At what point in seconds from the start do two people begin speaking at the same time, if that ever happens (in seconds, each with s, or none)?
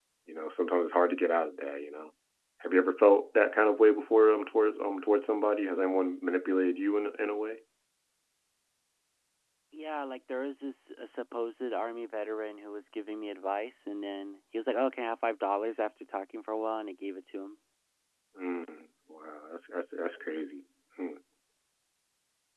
none